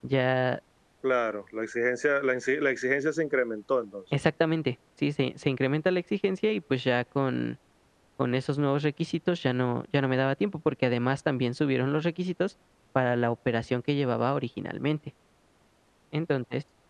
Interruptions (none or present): none